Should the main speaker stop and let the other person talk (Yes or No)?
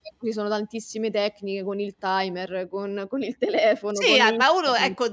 Yes